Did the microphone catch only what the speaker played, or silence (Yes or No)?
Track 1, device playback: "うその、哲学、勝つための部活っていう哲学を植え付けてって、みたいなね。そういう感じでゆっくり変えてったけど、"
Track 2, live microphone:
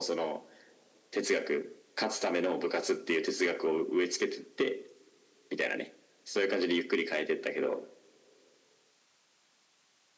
Yes